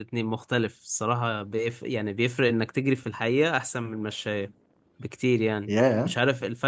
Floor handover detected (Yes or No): No